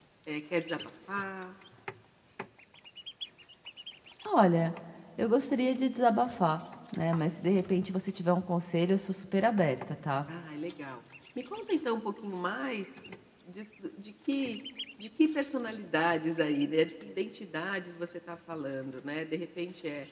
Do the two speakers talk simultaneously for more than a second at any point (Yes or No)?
No